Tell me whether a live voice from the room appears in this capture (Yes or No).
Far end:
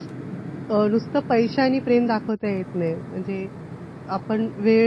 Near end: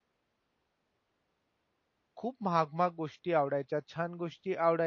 Yes